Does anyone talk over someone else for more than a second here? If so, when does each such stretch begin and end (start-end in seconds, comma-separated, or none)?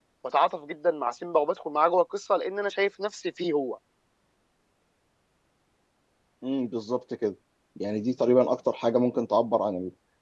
none